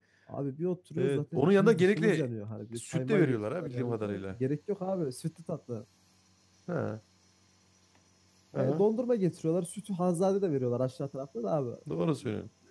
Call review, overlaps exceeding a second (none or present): present